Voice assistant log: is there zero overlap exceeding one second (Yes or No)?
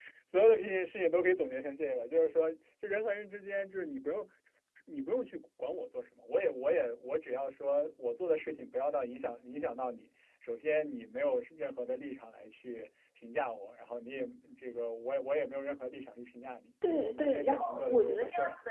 No